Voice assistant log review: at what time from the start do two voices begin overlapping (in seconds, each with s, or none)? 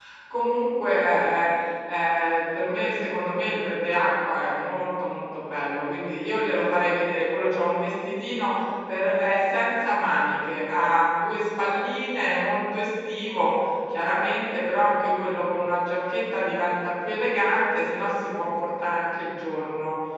none